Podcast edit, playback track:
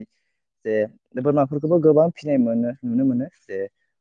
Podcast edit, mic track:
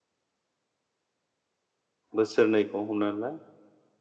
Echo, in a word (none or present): none